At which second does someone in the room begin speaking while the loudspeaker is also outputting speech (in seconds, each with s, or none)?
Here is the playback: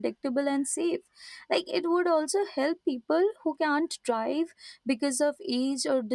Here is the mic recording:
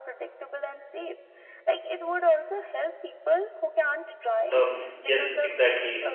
4.5 s